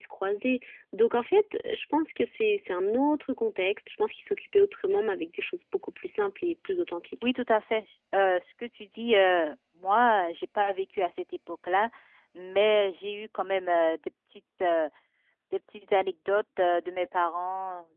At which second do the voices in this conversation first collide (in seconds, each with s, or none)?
none